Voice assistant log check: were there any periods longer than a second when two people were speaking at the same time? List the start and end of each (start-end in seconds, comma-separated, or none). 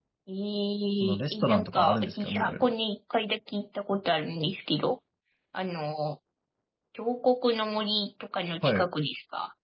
1.0-2.7